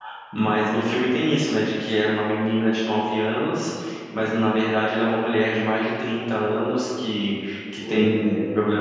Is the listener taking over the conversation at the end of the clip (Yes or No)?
No